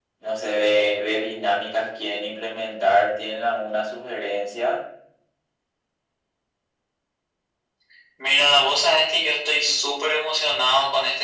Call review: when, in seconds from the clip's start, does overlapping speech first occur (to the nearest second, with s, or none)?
none